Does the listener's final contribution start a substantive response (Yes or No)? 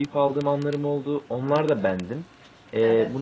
No